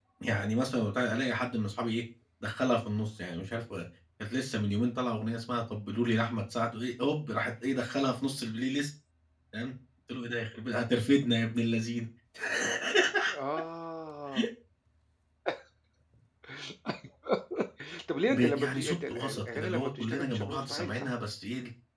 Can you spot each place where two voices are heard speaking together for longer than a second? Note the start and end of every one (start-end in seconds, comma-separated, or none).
18.3-21.1